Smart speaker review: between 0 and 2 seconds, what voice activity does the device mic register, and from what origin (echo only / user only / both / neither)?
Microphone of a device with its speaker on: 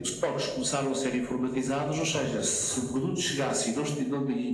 echo only